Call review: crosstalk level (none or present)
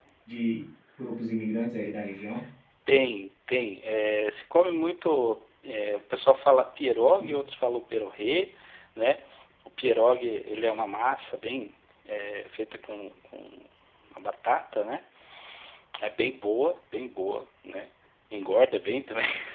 none